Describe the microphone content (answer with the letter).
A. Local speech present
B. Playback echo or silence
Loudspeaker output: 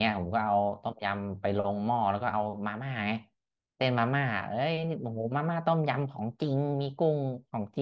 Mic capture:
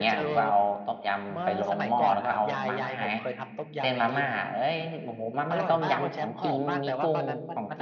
A